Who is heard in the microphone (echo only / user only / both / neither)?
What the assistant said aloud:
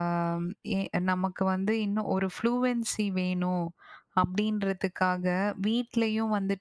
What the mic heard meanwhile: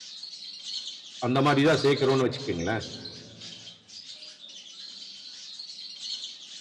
user only